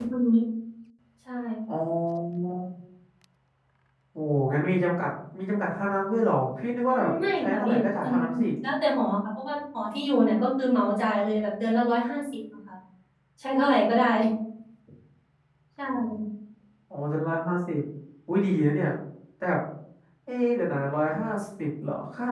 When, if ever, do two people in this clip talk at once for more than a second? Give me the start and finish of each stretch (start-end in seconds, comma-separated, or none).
6.9-8.1